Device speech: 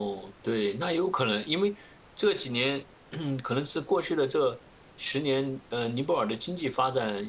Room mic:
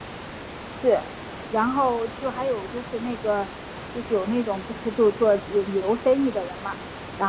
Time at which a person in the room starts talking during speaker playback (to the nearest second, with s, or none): 1 s